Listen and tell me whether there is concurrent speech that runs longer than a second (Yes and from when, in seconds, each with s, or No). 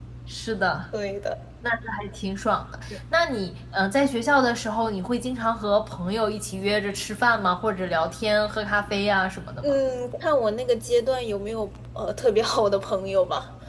No